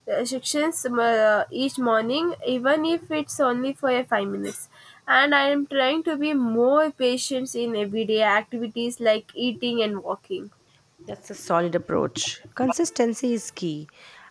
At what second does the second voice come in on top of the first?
none

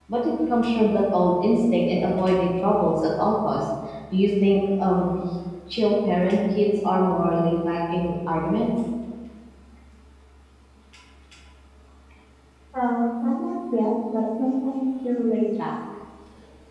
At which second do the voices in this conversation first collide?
none

